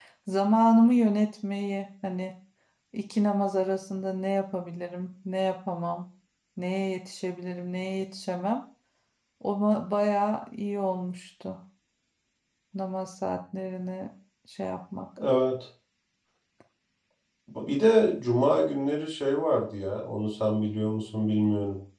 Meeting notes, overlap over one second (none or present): none